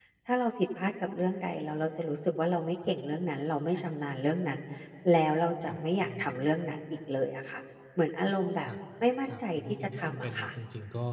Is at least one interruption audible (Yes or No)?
Yes